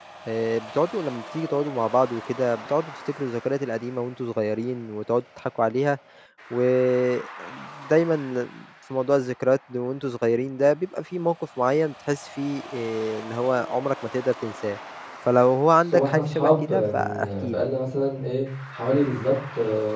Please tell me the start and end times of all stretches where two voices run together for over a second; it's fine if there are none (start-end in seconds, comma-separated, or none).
15.9-17.5